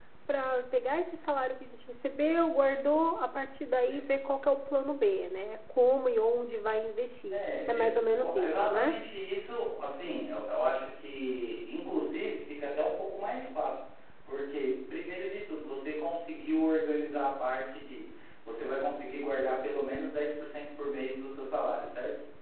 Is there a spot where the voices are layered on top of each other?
Yes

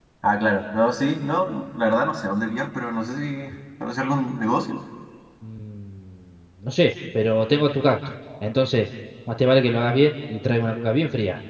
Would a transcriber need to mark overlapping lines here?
No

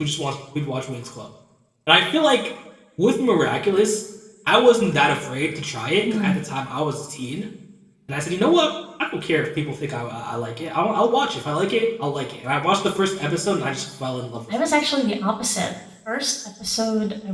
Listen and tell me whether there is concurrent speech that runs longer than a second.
No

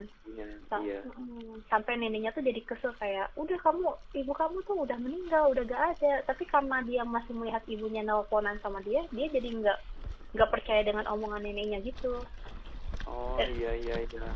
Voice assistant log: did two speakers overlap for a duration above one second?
No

